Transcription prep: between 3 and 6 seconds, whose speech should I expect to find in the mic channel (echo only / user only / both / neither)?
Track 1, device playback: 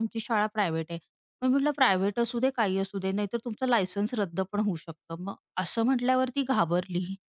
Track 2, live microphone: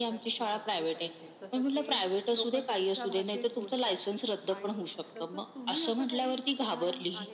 both